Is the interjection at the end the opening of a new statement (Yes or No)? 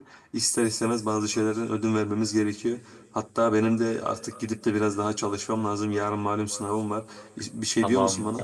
Yes